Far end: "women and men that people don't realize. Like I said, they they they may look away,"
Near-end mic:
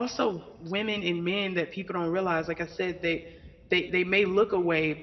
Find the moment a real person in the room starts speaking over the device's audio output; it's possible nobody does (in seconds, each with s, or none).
none